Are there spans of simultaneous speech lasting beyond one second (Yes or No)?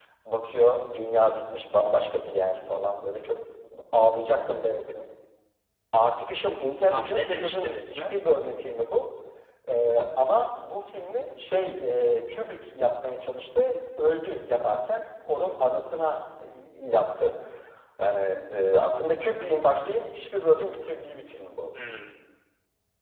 Yes